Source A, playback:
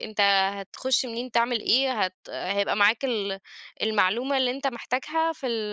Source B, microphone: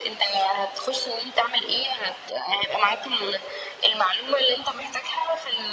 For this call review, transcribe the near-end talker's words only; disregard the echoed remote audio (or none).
none